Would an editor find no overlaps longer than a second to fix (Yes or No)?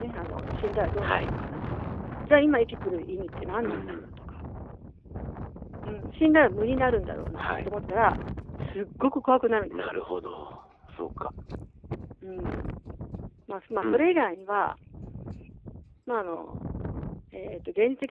Yes